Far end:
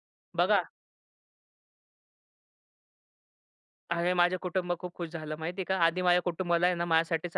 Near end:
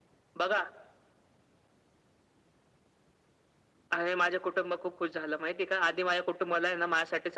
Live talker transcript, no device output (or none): none